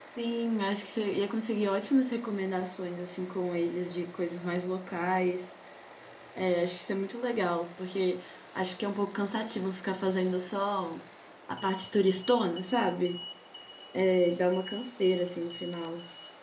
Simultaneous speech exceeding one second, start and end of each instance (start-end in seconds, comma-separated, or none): none